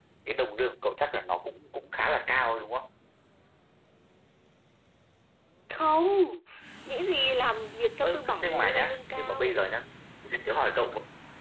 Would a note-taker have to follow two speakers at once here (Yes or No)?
Yes